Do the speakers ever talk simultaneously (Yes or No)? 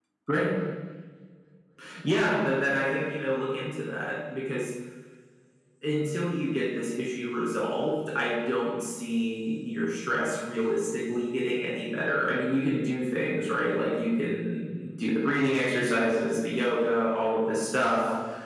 No